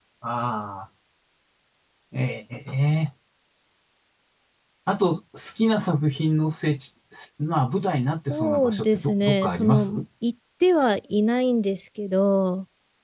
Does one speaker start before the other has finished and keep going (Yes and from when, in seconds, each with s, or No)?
Yes, from 8.3 s